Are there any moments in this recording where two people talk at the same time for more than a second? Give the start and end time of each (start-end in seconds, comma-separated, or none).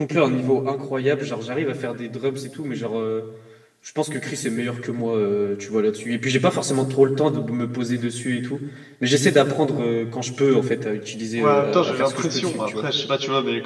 11.4-12.9